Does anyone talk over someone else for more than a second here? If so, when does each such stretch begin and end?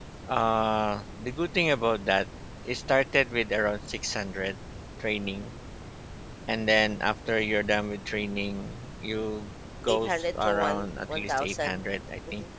9.9-11.8

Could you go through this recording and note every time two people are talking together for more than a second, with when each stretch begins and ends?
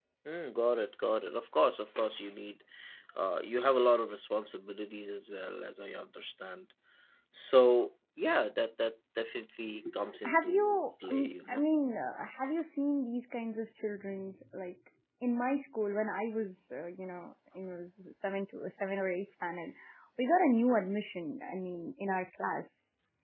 10.2-11.6

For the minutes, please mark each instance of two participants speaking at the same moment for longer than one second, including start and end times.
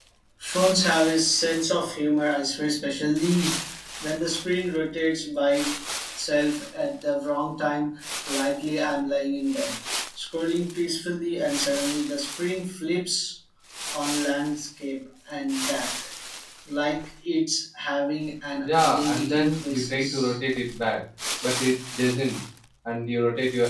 18.6-20.4

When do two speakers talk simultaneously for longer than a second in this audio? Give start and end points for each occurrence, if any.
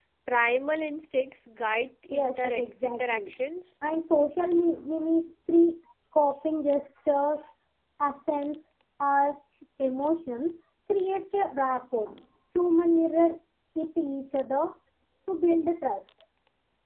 2.1-3.3

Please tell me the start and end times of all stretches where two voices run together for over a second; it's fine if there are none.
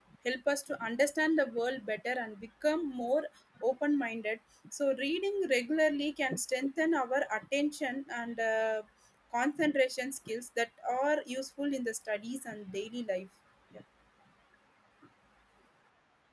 none

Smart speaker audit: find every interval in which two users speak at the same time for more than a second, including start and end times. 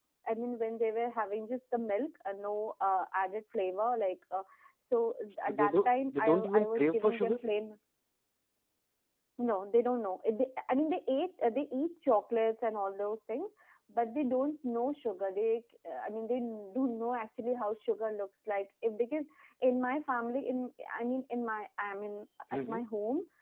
5.5-7.4

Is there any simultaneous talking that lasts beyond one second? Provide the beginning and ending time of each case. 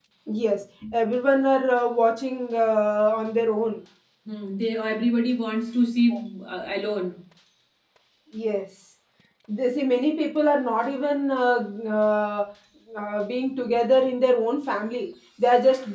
none

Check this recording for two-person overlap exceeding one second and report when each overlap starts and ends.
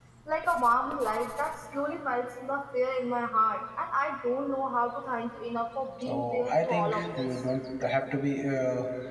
6.0-7.3

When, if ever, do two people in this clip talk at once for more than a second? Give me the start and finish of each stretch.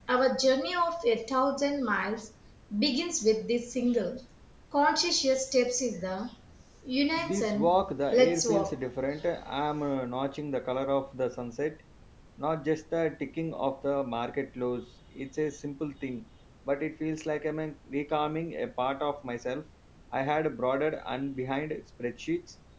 7.2-8.7

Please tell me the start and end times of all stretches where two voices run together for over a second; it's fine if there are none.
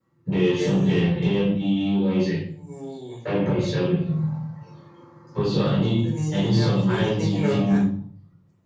6.0-7.8

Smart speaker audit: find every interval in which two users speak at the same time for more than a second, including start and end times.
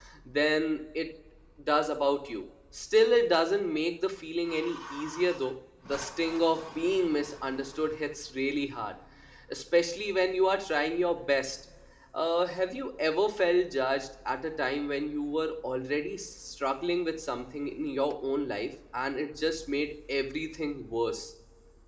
none

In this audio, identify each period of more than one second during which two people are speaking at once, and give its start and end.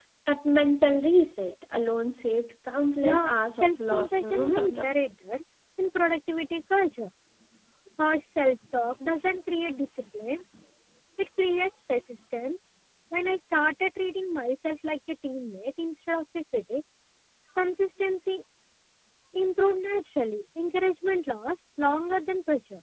3.1-5.0

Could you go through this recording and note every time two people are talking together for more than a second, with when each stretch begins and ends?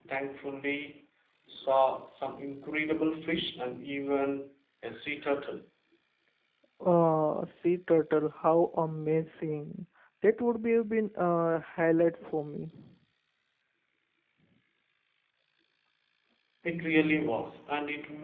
none

